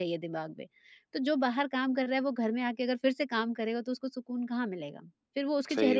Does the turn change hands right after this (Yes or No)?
Yes